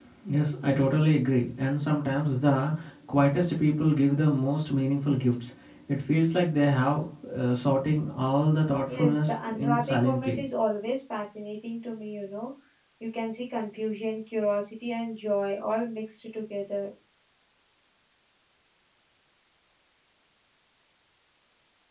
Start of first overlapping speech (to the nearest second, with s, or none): 9 s